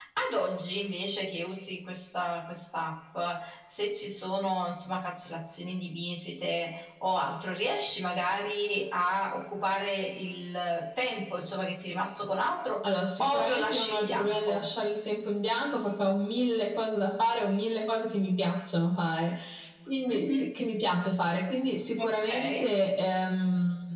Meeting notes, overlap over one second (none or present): present